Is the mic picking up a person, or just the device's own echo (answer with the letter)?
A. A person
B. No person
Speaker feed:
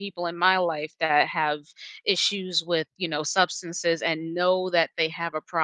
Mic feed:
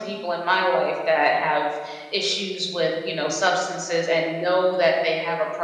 B